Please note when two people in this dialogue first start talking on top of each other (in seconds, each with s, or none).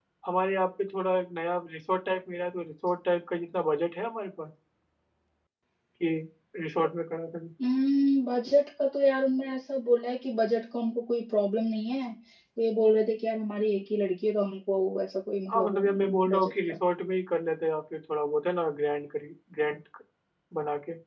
15.5 s